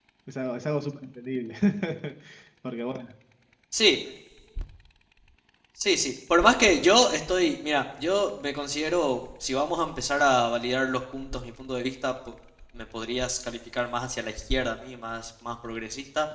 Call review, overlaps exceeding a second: none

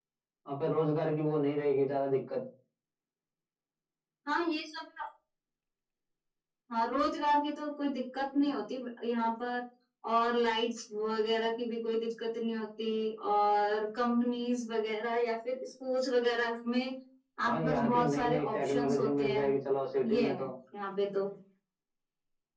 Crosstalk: present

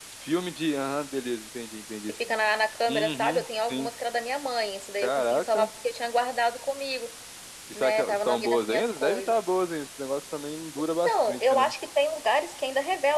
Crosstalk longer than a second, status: present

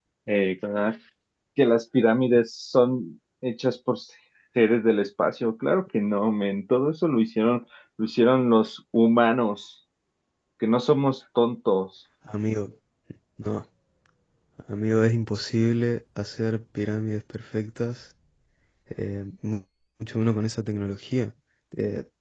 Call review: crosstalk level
none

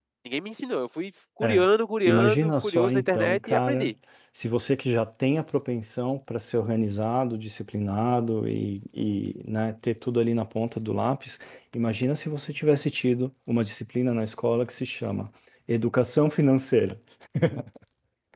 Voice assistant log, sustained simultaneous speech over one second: present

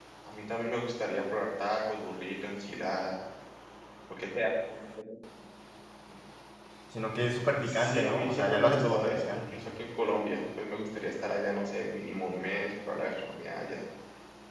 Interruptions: present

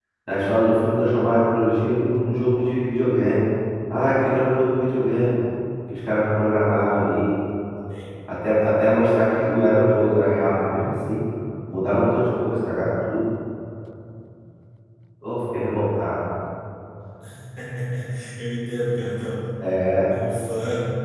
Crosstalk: none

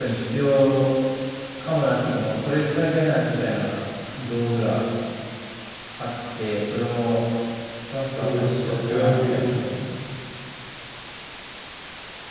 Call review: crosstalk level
present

